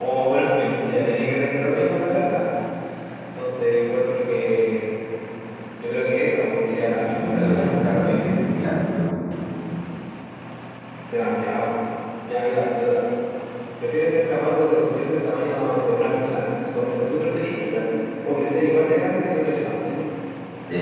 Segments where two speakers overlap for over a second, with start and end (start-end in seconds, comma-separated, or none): 7.0-8.4